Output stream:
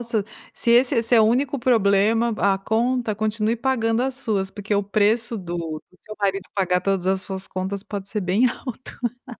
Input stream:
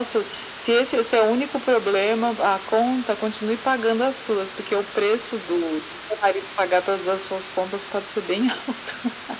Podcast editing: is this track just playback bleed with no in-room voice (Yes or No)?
Yes